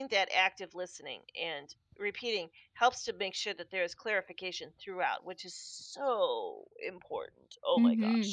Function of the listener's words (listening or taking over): taking over